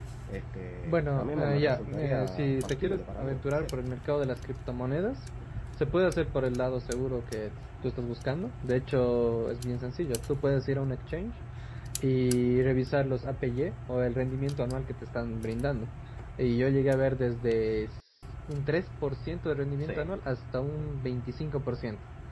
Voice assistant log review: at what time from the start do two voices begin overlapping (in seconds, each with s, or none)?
0.8 s